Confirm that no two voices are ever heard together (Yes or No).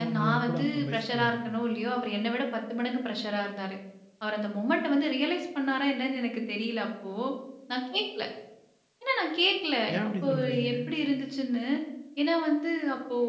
No